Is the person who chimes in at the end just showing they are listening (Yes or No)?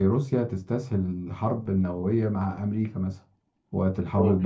Yes